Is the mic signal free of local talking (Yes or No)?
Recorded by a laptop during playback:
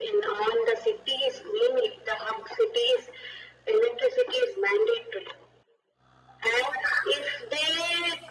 Yes